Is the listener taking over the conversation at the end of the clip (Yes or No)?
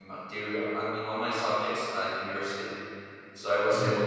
No